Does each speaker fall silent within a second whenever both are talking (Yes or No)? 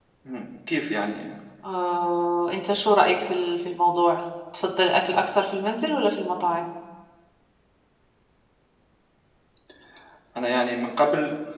Yes